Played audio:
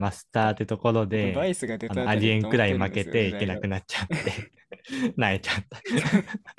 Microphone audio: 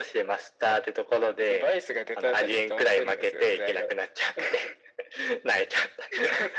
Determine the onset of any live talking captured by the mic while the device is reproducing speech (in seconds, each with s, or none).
none